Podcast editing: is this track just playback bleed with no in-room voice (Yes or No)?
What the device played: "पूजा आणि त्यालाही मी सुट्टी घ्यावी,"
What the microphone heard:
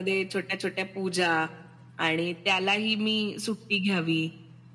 Yes